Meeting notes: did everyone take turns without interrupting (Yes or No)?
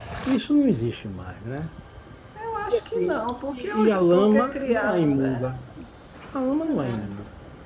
No